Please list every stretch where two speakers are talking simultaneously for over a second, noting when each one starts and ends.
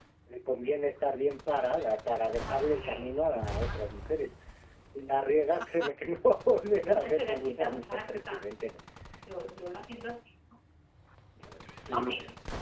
2.4-3.8, 6.9-8.6

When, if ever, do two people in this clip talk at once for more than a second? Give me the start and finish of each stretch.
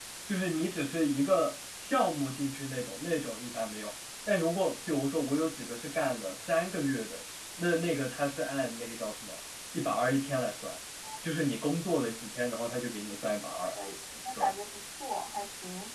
none

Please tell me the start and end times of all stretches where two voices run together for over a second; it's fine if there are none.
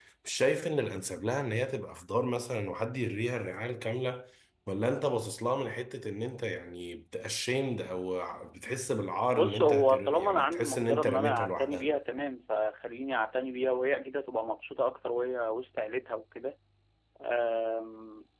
9.4-11.9

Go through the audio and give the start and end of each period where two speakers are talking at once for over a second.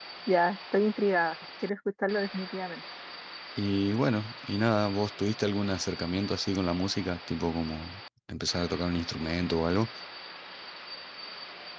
none

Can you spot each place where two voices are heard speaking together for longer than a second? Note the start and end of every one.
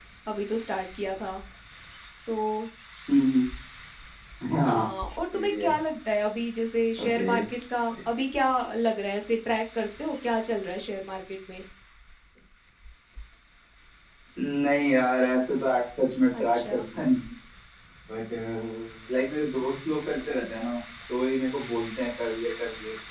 none

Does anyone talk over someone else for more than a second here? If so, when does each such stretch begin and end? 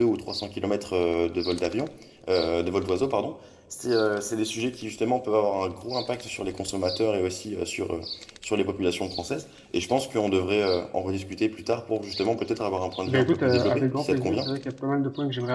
13.1-14.5

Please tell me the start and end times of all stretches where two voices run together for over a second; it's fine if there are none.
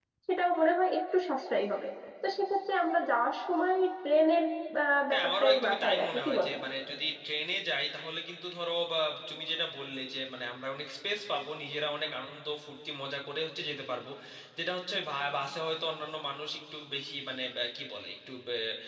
5.1-6.5

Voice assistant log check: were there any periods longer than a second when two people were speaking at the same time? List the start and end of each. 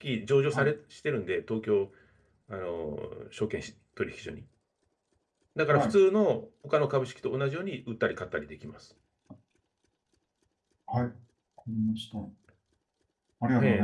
none

